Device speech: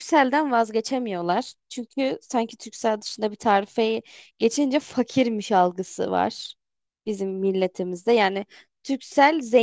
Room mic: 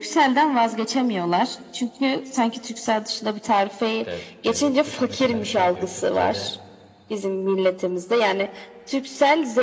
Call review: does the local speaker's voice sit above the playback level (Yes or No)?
No